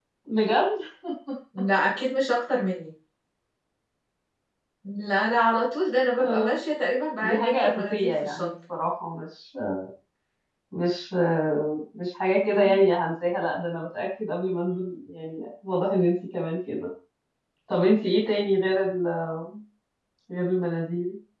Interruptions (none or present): present